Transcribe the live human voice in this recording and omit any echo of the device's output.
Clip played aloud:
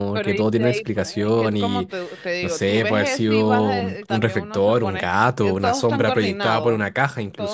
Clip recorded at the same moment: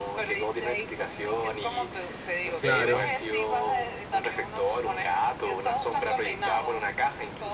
Claro,

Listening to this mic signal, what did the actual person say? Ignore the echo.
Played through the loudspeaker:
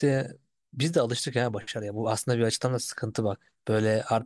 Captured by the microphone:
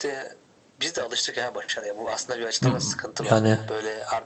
Hmm, Yani

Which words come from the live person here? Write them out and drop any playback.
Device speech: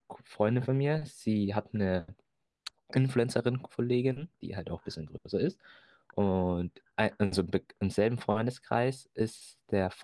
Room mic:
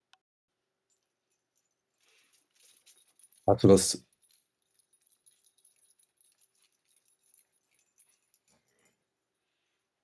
Hast du das,

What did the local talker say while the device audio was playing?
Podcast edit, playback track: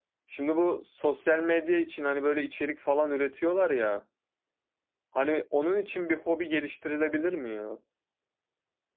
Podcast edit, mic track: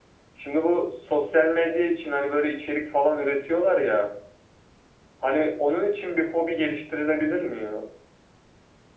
none

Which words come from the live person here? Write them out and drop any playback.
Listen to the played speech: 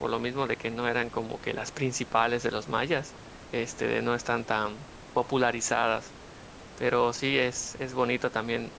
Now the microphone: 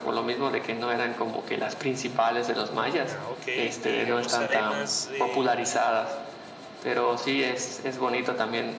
Ah, ok. Y digamos, hay más em,

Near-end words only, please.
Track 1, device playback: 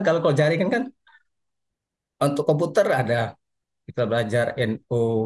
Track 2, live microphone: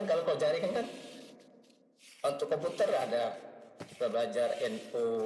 none

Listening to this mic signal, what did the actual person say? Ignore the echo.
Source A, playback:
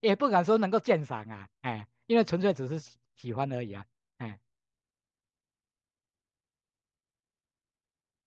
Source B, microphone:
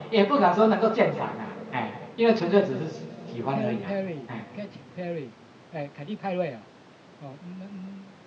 Perry Perry Katy Perry，哎，凯蒂派瑞哦，哦，那那

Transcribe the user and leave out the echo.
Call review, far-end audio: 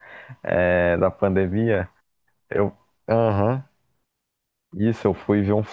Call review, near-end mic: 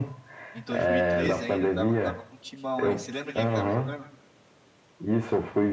Em 2013 ainda, tava, tava com o Timão, hein? Você lembra quem é que tava jogando?

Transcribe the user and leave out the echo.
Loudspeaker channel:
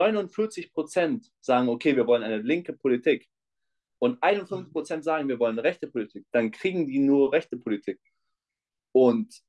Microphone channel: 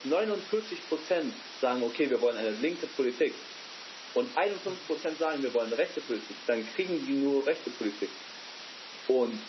none

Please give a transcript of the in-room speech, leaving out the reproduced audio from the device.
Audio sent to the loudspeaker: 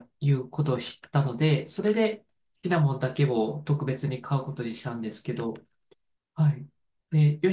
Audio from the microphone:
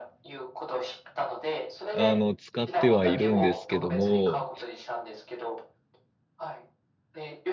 あの、使ってはいるんですけども、

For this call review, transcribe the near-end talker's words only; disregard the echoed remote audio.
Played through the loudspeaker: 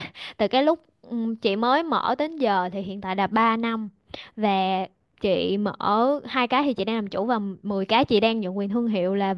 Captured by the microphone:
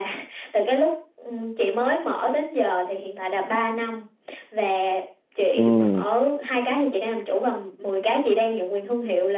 Ừ,

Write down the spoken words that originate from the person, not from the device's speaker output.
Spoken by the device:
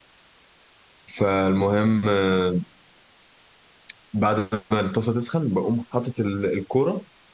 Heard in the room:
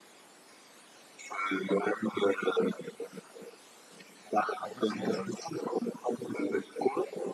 هتجيب صينيه

